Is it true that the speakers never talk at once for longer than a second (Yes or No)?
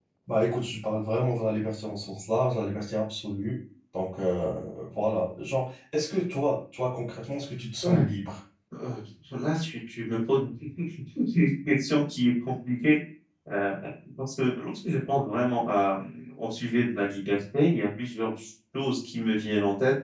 Yes